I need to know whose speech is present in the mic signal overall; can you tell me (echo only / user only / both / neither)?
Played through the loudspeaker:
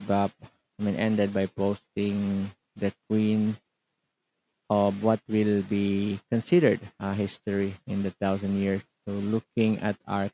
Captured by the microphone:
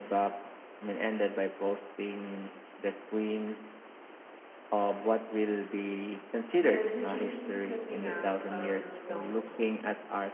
both